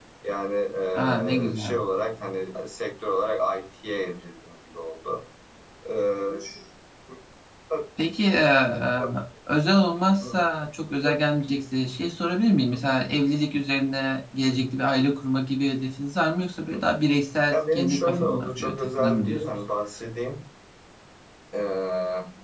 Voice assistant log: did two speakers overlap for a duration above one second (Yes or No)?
Yes